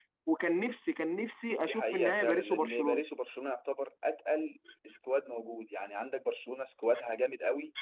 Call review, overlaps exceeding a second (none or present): present